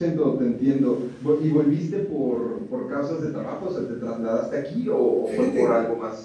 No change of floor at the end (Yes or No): No